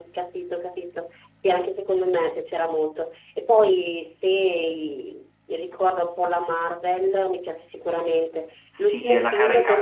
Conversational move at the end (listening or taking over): taking over